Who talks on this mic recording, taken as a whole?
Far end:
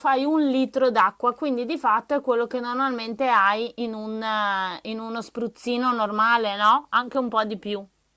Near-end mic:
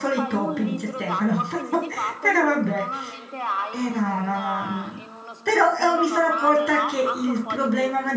both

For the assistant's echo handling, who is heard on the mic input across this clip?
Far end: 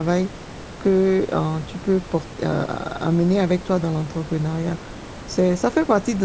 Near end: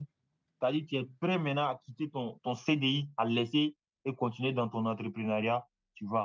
user only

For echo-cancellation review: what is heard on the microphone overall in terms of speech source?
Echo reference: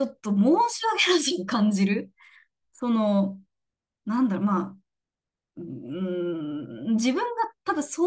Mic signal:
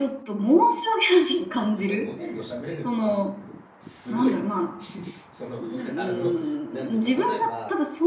both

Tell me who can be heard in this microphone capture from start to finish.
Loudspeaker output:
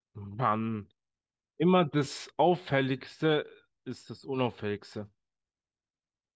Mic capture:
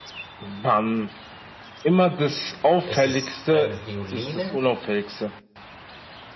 both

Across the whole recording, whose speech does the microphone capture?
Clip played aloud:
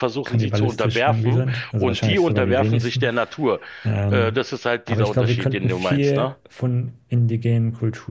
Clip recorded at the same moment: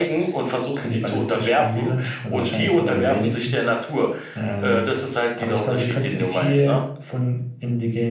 echo only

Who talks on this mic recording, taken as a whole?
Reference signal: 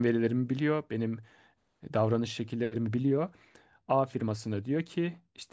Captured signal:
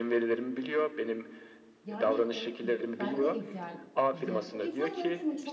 both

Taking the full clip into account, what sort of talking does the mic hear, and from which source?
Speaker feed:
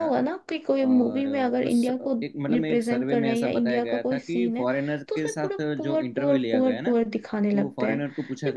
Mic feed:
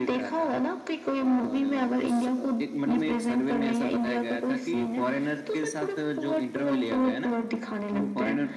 echo only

